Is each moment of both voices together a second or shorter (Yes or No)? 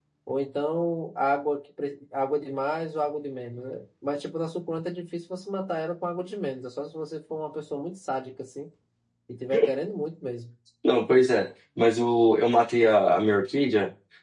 Yes